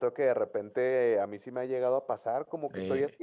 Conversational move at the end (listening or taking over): listening